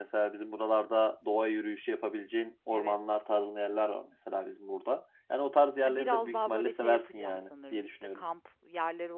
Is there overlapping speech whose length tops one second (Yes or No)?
Yes